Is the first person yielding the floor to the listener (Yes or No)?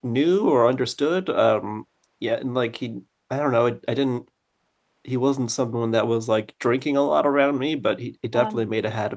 No